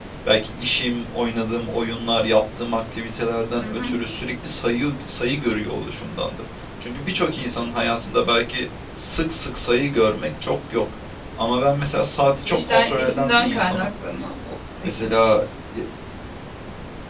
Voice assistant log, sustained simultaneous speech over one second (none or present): present